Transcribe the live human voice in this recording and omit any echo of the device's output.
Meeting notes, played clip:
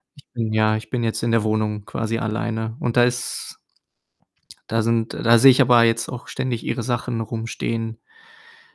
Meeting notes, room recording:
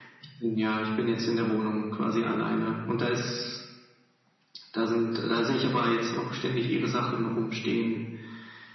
none

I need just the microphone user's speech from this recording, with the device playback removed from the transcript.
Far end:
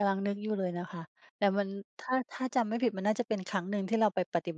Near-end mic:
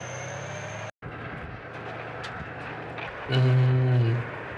อือ

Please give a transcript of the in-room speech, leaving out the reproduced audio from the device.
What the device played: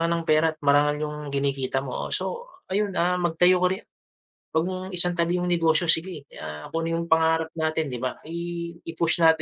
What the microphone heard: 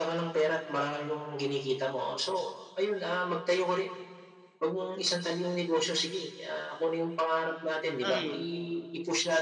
Mm.

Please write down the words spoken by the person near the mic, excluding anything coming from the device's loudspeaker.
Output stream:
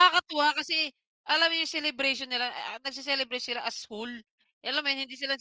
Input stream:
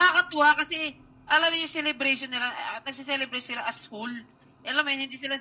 none

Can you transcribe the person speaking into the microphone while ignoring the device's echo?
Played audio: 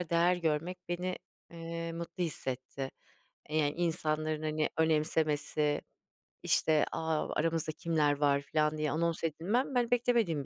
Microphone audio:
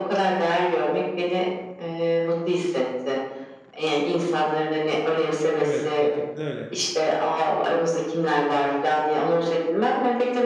Evet, gerçekten öyle.

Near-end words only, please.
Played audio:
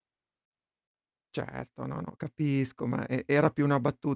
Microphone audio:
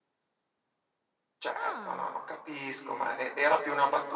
Ah.

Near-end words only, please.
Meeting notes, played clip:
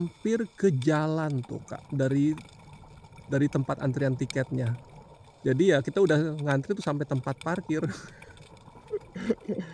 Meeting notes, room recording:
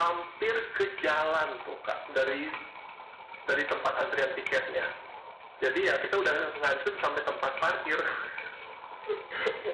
none

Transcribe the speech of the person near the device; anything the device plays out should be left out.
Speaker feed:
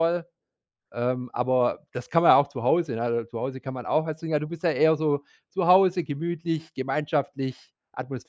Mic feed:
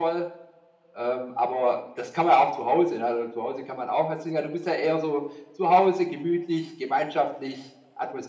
none

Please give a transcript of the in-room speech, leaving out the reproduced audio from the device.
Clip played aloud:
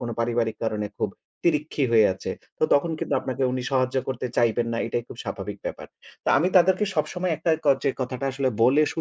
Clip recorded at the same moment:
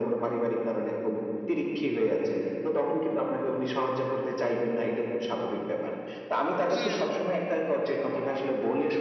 হম।

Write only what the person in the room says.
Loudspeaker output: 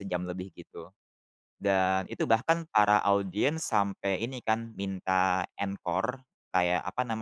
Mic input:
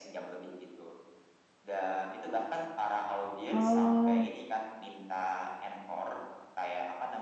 Oh.

